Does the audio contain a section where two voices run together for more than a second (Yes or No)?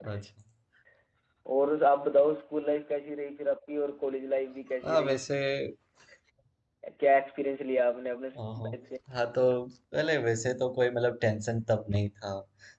No